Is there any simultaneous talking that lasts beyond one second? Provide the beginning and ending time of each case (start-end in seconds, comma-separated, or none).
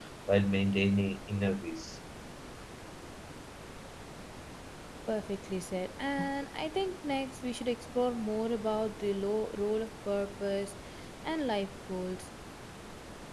none